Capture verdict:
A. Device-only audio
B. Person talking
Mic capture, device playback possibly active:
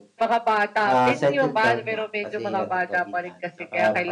B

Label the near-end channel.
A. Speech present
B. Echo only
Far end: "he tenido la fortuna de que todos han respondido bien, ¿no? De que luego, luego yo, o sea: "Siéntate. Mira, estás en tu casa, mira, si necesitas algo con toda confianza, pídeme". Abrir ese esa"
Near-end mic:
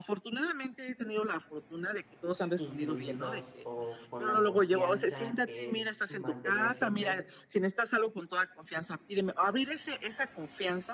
A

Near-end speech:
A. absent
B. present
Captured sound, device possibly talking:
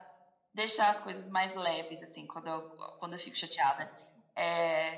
A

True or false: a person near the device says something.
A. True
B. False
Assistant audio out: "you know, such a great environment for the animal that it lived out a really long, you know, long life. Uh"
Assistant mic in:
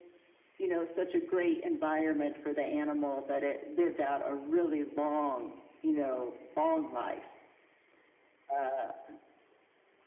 B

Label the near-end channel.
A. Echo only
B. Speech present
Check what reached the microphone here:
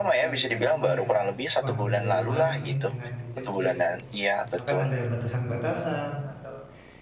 B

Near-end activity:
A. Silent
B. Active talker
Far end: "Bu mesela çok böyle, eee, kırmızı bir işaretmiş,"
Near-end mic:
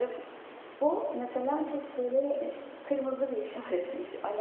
A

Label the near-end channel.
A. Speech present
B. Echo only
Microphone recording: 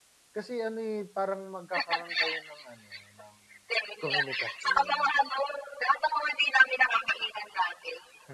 A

